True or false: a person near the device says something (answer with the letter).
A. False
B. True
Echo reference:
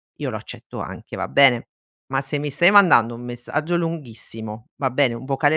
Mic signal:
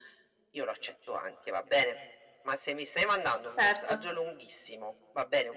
B